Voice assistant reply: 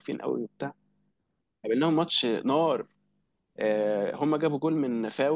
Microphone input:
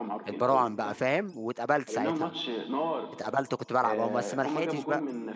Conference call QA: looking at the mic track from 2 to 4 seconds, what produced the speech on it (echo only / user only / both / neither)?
both